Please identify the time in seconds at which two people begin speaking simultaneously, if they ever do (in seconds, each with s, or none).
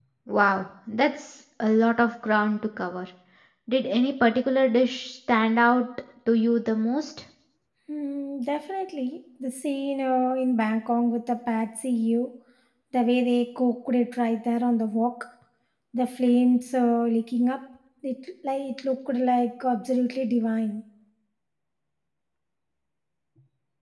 none